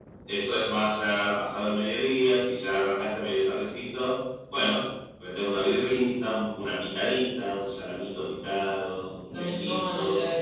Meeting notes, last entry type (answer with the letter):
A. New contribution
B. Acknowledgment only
A